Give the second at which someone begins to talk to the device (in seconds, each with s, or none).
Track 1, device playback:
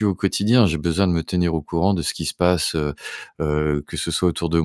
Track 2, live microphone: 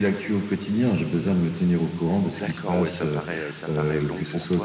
2.3 s